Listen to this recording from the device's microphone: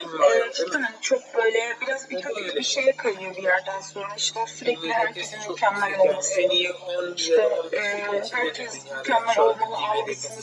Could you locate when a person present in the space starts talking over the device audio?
none

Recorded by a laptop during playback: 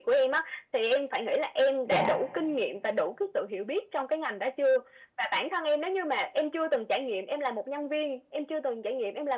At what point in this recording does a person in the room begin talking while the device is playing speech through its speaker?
2 s

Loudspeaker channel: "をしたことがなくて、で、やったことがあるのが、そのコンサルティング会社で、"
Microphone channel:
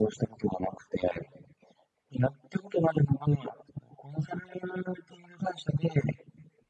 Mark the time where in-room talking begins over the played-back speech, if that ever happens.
none

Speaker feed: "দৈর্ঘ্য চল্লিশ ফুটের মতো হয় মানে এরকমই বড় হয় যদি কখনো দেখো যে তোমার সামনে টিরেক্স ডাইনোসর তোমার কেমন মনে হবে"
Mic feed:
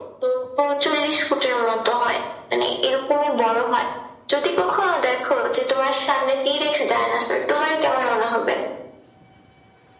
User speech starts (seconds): none

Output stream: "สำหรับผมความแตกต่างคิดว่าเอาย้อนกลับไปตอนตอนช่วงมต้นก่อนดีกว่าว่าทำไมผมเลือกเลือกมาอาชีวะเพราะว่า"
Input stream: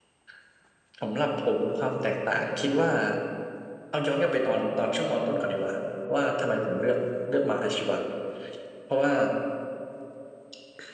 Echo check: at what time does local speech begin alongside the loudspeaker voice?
none

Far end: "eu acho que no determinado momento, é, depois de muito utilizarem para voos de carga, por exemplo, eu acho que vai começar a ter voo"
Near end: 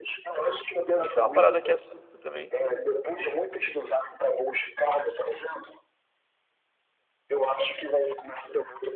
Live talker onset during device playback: 1 s

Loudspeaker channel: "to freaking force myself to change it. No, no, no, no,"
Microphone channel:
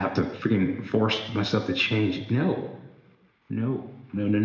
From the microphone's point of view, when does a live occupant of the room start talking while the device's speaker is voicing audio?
none

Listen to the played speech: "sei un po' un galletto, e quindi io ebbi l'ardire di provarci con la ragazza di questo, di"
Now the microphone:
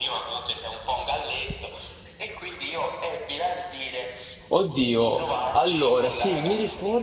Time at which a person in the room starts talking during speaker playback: 4 s

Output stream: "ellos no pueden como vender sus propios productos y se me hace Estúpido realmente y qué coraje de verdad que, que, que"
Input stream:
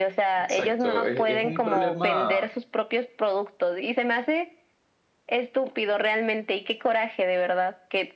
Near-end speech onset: 0 s

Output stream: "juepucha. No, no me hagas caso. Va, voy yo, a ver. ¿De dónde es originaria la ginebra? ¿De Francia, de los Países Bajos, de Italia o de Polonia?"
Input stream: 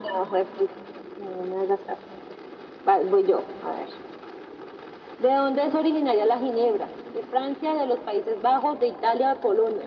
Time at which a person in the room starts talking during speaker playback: none

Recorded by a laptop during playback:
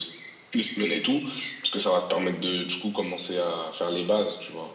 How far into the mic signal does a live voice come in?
none

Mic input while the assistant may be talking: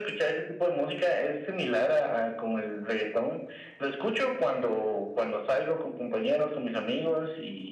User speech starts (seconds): none

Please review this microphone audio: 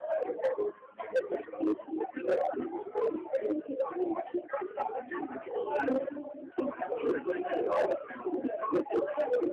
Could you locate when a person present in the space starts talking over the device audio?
none

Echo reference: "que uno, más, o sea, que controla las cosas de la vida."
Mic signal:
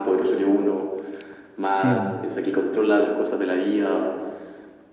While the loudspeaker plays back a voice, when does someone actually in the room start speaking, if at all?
2 s

